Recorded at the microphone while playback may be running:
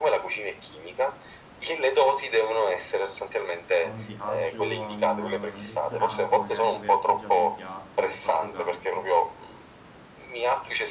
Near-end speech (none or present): present